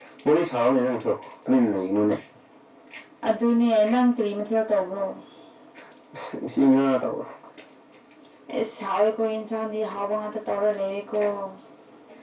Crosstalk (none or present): none